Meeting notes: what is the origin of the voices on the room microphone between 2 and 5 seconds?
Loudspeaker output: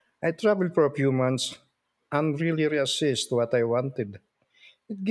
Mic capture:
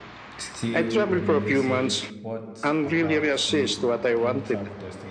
both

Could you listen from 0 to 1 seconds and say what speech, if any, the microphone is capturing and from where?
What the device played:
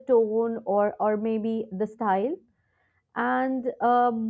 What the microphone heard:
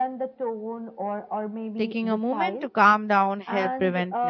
echo only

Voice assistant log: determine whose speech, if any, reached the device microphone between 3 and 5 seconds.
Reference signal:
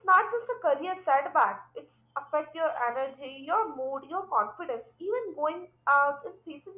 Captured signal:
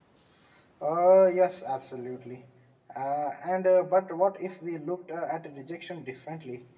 user only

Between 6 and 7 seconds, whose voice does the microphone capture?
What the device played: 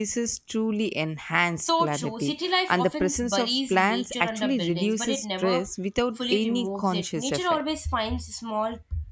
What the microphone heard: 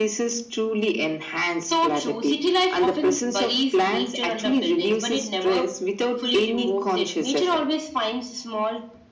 echo only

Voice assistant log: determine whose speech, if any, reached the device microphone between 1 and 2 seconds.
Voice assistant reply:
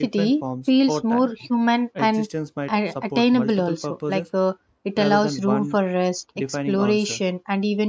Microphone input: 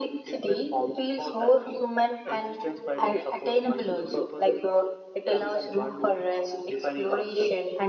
echo only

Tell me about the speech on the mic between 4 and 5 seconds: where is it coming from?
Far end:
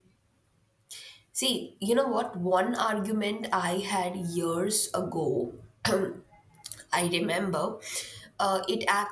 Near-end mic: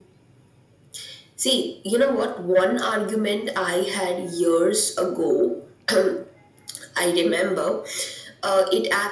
echo only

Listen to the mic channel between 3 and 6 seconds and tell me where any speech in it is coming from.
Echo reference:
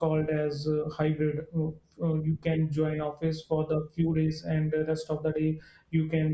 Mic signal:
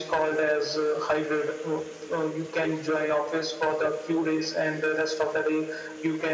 echo only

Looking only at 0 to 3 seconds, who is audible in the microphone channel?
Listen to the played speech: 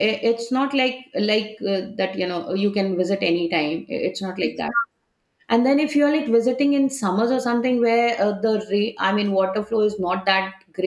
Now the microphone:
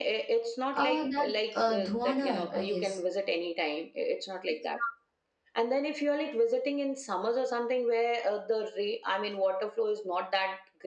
both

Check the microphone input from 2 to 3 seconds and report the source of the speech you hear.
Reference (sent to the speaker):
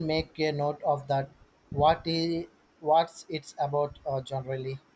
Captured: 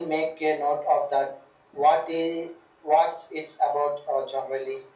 echo only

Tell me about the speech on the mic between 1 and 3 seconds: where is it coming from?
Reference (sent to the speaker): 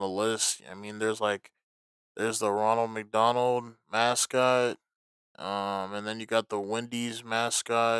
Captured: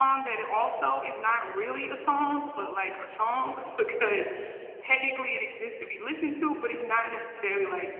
user only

